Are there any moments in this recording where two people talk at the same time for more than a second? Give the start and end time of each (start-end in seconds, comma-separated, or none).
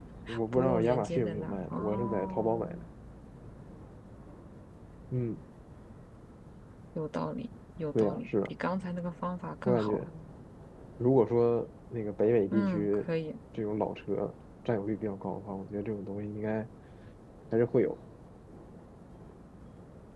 0.5-2.8